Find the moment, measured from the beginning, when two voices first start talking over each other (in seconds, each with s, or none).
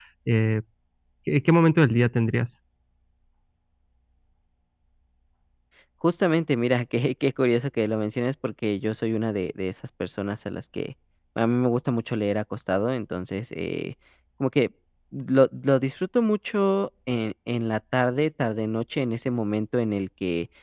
none